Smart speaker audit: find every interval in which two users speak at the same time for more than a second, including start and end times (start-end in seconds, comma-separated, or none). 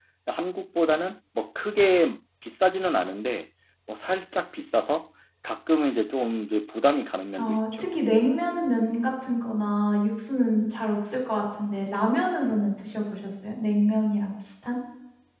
none